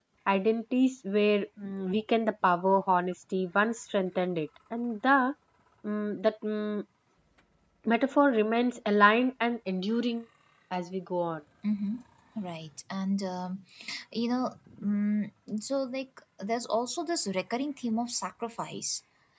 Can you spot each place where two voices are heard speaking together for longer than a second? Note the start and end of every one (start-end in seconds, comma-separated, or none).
none